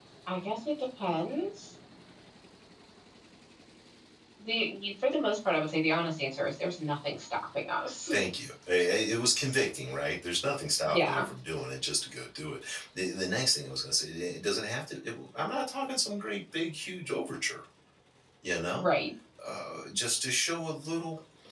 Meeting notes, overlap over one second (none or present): none